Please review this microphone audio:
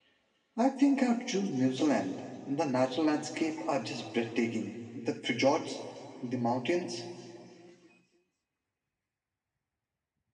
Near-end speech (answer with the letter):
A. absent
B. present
A